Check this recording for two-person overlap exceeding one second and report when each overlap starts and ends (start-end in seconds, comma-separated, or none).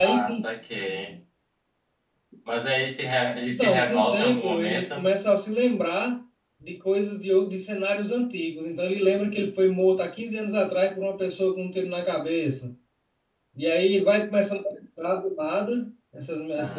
3.5-5.1